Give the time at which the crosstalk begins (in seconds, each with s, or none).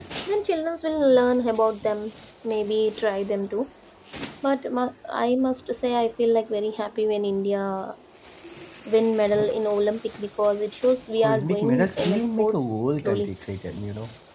11.2 s